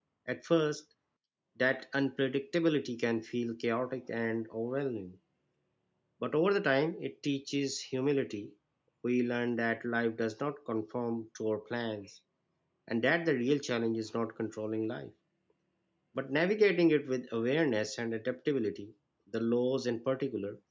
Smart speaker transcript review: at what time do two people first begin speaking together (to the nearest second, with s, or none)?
none